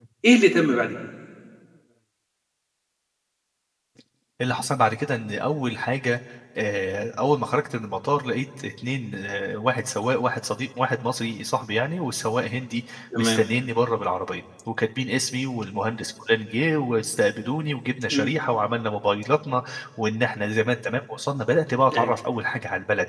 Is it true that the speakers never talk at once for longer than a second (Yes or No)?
Yes